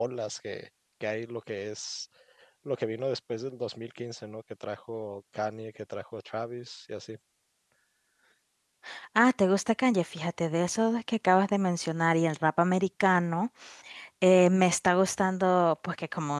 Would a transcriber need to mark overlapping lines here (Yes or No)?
No